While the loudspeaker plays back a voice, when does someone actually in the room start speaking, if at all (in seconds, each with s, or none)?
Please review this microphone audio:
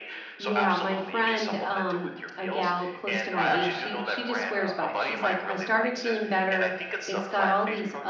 0.4 s